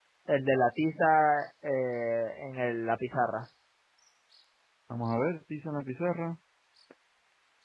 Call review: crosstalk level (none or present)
none